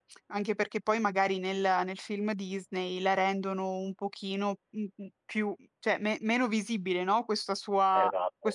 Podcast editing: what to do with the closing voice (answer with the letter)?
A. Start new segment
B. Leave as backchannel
B